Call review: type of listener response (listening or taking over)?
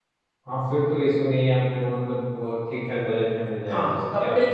taking over